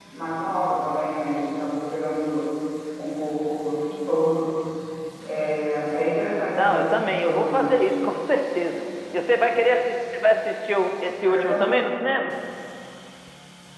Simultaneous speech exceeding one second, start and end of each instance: 6.5-7.8

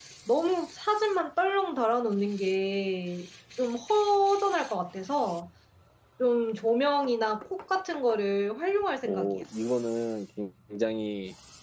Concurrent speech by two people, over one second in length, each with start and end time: none

